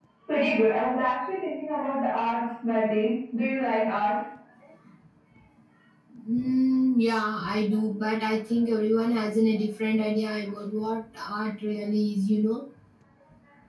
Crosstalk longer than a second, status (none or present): none